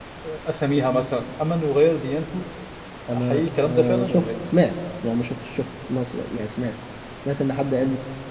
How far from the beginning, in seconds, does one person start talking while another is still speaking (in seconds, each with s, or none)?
3.1 s